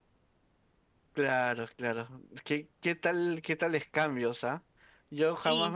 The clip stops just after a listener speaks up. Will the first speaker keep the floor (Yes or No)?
Yes